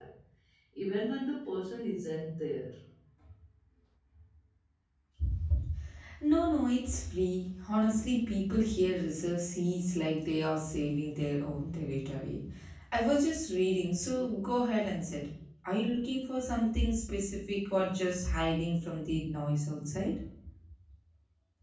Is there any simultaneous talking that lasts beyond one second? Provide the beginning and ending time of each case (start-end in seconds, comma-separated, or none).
none